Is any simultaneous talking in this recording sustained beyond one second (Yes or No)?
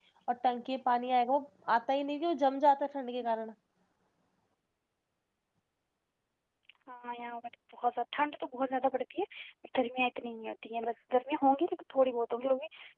No